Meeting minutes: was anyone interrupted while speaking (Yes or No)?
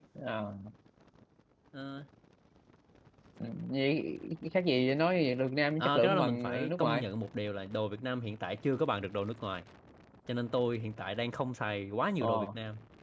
Yes